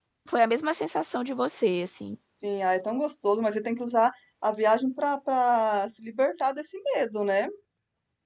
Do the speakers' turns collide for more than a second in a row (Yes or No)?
No